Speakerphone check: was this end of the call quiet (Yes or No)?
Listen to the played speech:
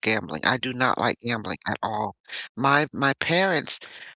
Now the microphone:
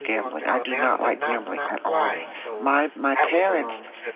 No